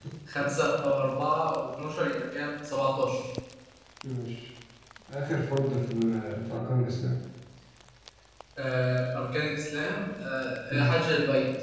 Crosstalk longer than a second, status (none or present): none